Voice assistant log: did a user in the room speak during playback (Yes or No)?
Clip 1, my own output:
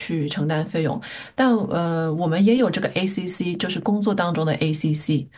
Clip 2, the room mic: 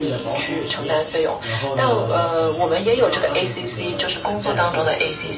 Yes